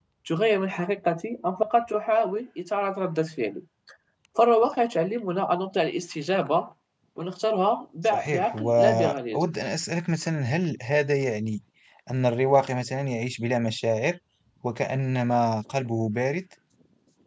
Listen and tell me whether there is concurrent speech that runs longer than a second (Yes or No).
Yes